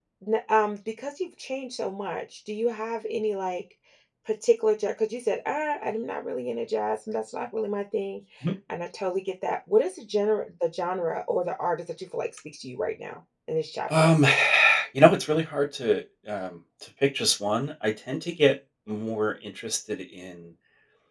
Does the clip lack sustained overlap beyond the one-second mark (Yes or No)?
Yes